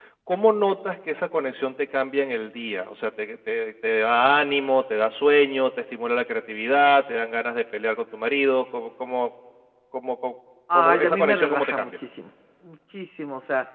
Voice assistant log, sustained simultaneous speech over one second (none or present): present